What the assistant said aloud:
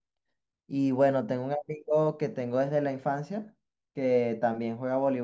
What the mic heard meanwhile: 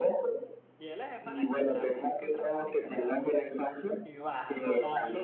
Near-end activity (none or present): present